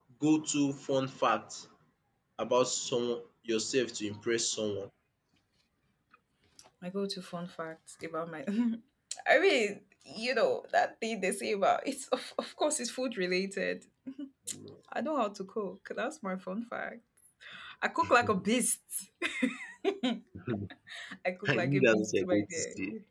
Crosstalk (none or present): present